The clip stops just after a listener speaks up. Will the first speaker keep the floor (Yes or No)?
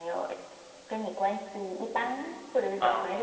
Yes